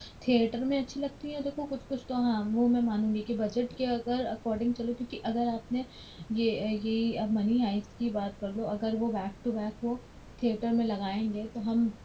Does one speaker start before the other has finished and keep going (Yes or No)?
No